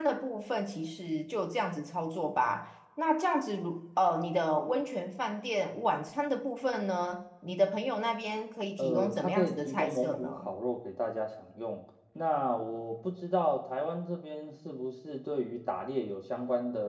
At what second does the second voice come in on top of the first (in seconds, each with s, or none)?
8.8 s